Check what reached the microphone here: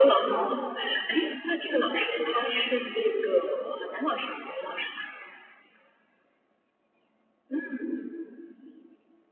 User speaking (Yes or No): No